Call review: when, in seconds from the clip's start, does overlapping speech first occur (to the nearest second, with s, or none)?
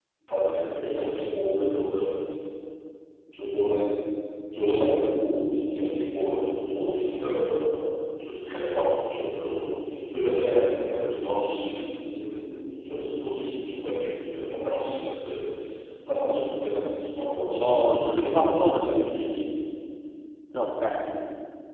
17 s